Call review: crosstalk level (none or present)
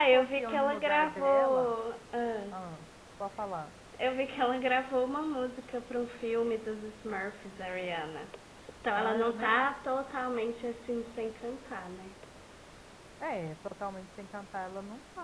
present